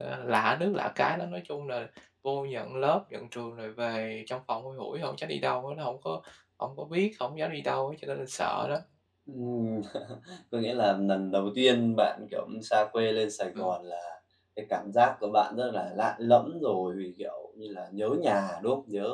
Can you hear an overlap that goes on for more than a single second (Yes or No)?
No